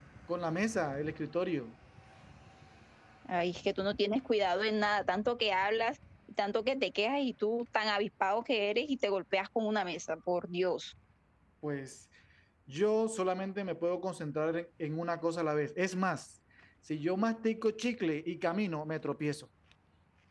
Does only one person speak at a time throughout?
Yes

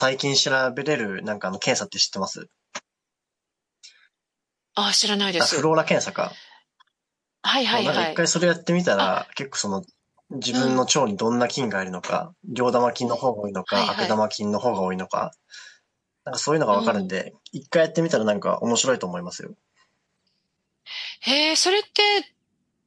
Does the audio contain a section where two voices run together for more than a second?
No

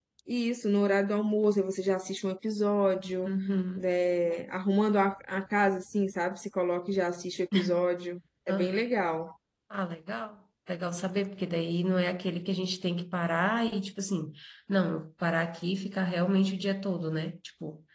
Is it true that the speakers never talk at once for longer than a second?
Yes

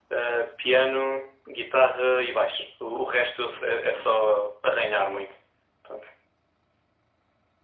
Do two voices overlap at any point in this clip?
No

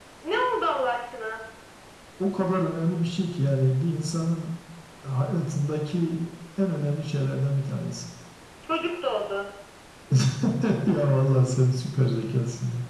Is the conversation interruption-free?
Yes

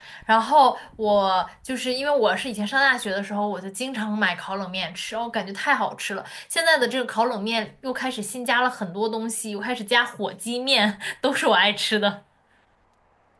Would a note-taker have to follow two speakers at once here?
No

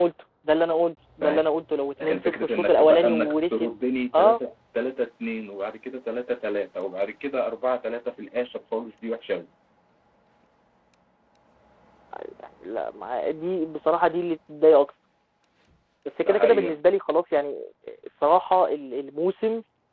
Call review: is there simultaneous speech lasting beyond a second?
Yes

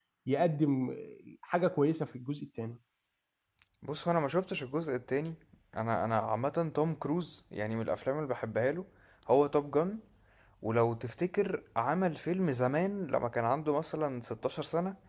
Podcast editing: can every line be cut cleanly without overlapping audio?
Yes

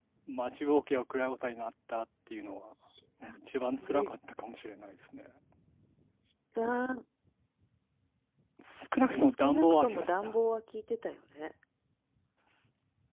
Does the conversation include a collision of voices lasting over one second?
Yes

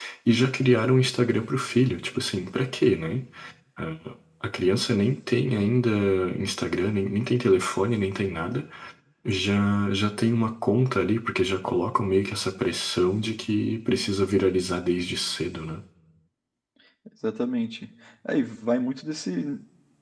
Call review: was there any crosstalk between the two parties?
No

